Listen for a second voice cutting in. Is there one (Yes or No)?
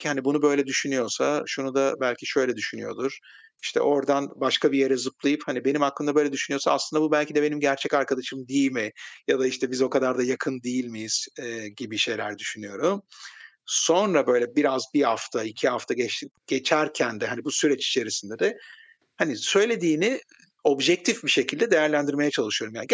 No